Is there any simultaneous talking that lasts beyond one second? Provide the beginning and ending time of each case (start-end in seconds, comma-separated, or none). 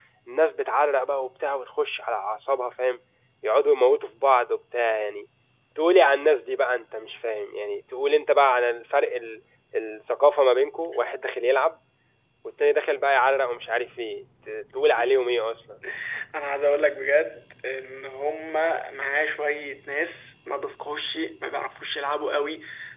none